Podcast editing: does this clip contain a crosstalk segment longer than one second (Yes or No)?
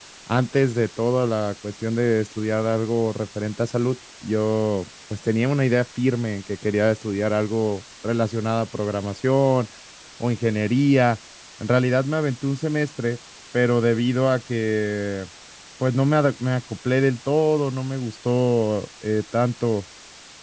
No